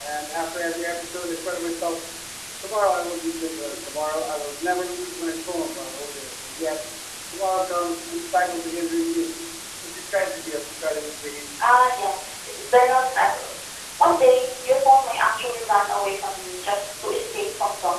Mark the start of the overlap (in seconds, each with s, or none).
none